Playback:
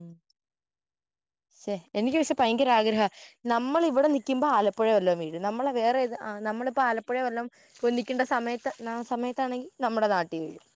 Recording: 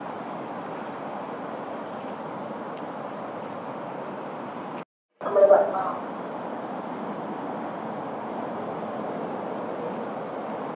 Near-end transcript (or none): നമ്മള് പറഞ്ഞൊ